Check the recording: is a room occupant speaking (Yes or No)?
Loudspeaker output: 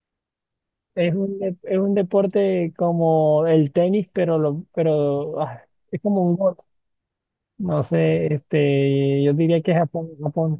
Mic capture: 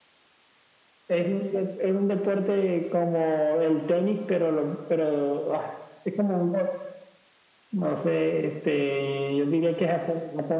No